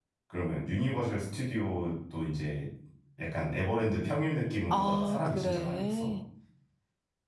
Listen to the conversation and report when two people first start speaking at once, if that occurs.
4.7 s

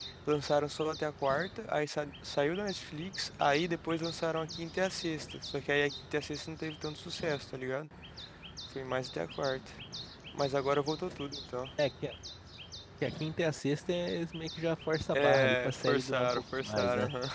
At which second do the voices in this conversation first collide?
15.1 s

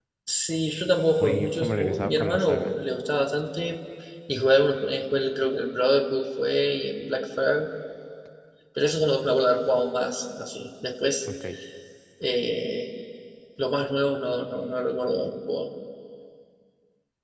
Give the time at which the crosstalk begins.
1.2 s

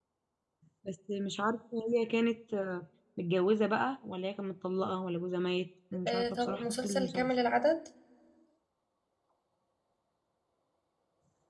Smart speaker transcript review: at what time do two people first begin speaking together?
6.0 s

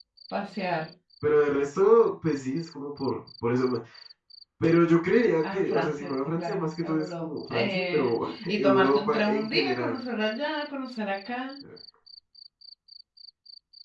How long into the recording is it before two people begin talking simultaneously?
5.4 s

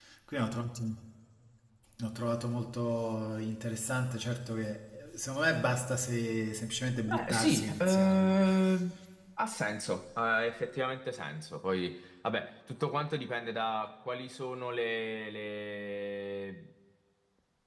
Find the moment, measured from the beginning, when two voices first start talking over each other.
7.1 s

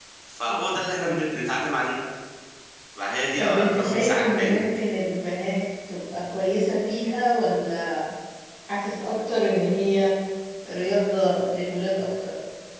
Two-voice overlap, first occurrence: 3.4 s

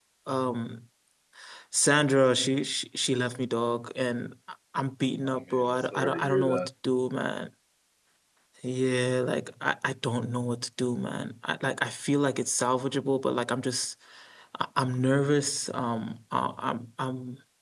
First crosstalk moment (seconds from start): 5.2 s

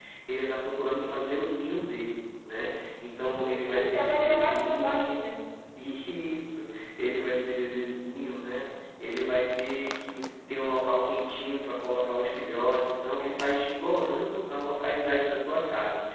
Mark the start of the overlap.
3.7 s

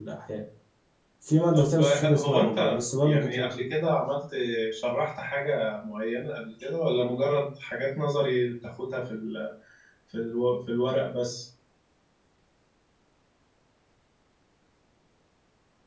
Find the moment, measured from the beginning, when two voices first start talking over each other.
1.5 s

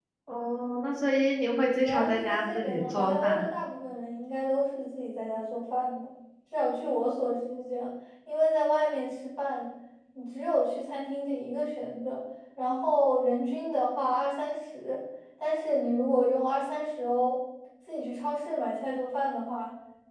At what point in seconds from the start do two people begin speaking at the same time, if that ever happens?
1.8 s

